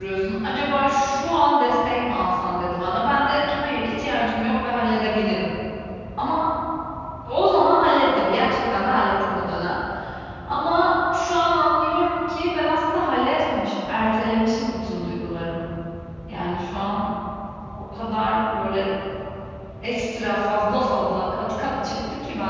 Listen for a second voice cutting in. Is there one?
No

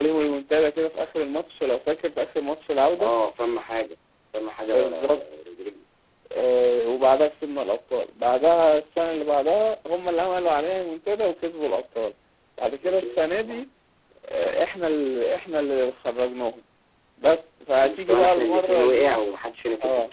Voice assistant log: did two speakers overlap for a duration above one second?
Yes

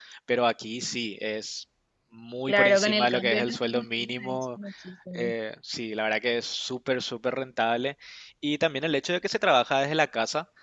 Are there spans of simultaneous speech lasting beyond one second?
Yes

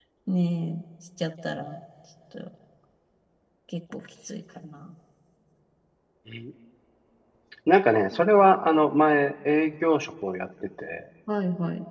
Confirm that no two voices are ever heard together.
Yes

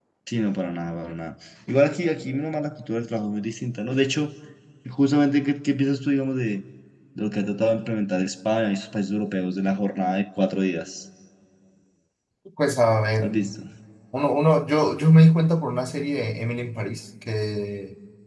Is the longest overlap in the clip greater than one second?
No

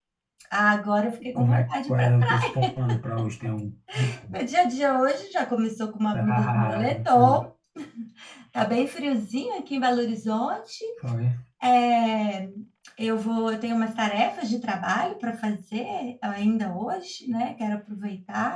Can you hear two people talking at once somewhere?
Yes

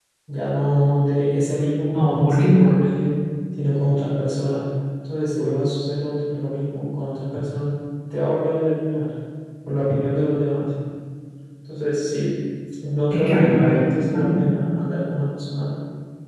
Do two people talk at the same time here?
Yes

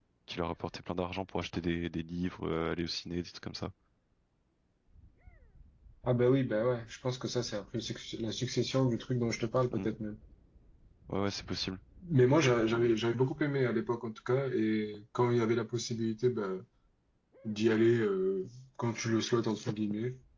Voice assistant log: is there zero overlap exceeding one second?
Yes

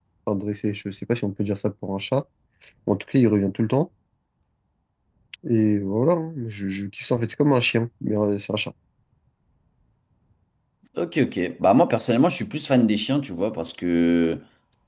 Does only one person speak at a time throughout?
Yes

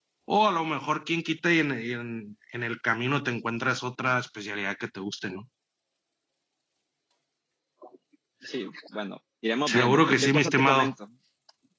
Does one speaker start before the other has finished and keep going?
Yes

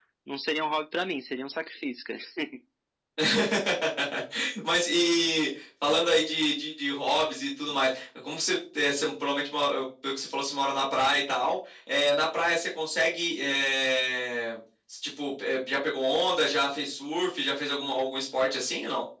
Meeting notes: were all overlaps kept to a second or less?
Yes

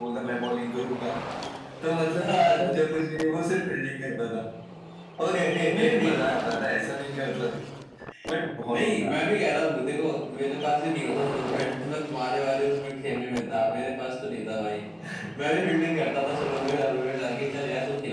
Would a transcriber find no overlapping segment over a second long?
No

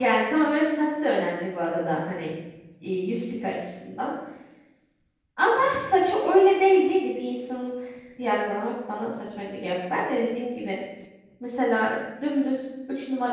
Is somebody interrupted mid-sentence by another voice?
No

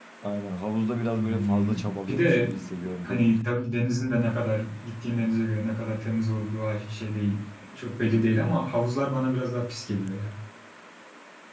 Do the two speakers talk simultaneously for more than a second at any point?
Yes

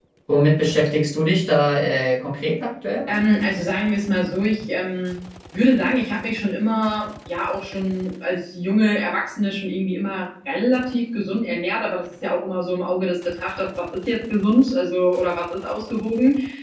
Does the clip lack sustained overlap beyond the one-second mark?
Yes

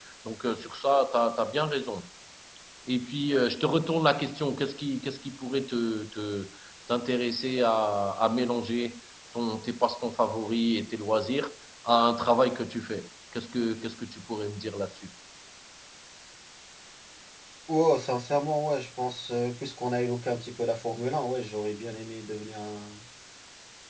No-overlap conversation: Yes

